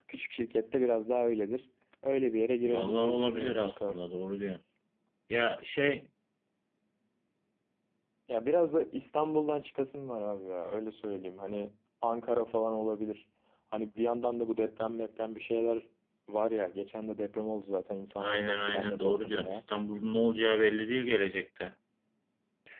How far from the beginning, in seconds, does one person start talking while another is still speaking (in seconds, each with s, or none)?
2.6 s